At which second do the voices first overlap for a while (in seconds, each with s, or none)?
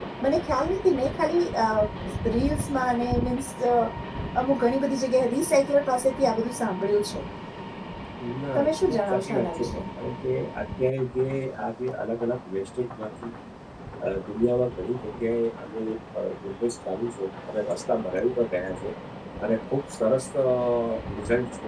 8.6 s